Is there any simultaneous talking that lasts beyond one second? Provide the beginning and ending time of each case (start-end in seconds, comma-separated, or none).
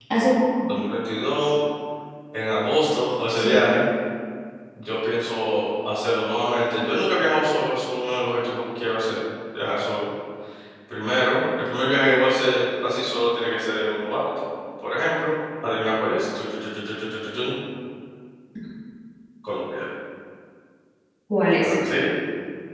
none